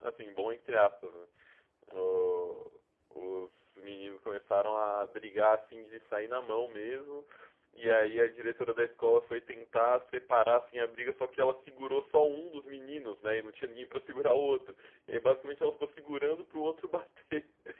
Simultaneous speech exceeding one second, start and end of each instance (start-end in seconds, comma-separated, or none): none